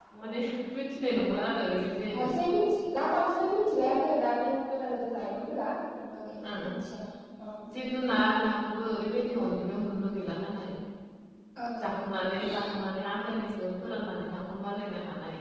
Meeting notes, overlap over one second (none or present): none